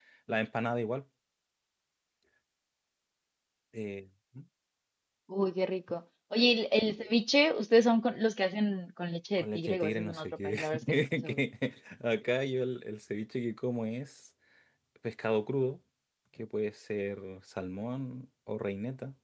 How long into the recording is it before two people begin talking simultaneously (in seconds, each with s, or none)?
9.4 s